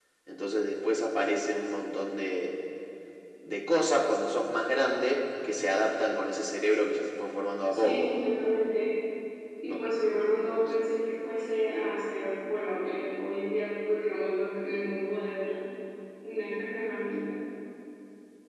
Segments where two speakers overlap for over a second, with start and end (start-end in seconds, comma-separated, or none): none